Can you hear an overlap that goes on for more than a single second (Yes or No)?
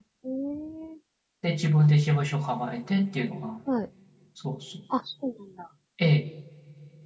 No